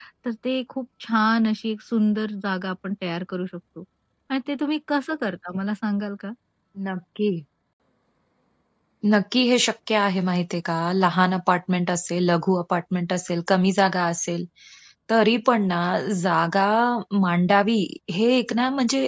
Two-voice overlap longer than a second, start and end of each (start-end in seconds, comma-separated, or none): none